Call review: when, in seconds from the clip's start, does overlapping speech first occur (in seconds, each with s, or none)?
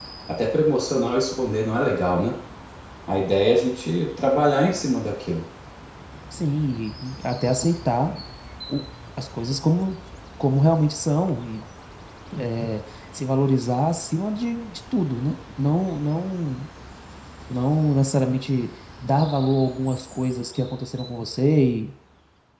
none